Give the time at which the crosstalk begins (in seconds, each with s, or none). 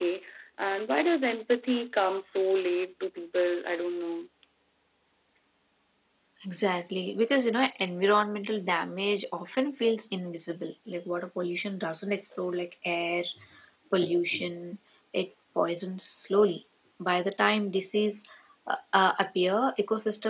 none